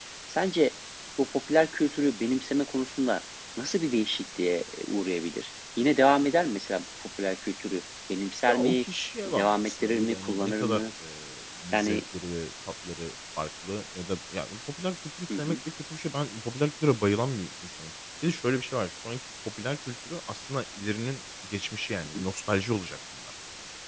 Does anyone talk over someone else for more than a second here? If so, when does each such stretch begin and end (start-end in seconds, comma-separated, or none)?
9.2-10.8